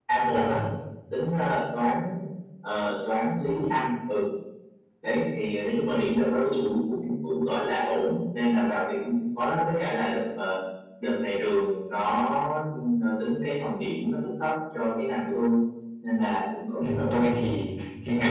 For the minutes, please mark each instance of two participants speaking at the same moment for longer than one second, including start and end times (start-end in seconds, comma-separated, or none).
none